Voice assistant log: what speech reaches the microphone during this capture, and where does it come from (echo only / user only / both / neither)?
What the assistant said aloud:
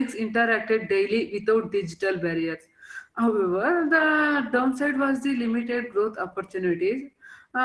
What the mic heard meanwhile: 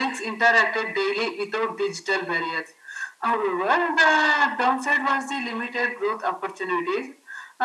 echo only